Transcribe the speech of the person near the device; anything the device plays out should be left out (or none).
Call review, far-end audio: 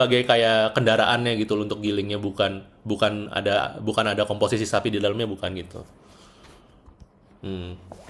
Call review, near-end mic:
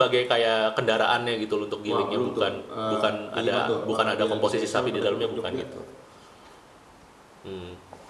wah belum tuh Eh, kayak gimana tuh apakah dia lebih spesial pada gudeg Jogja